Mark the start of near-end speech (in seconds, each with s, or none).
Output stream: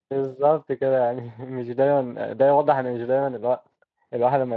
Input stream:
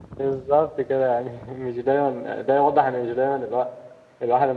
none